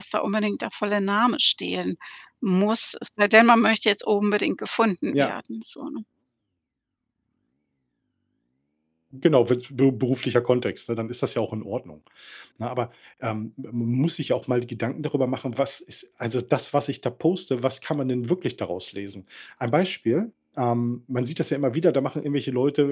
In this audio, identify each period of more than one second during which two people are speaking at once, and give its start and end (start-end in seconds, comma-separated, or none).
none